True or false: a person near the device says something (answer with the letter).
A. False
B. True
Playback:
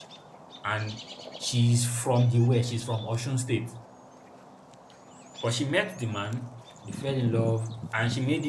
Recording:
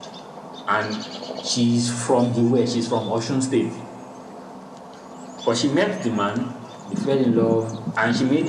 A